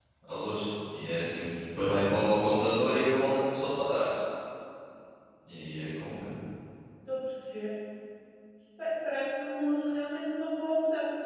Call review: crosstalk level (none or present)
none